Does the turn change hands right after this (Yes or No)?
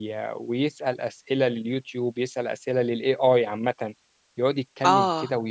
No